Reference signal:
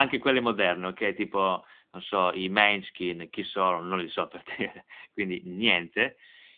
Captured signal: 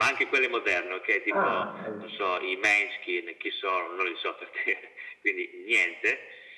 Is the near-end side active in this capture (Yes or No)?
Yes